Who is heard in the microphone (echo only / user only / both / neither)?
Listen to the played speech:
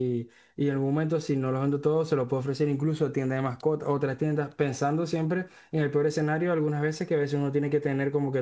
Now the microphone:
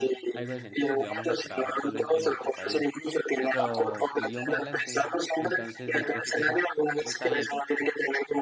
both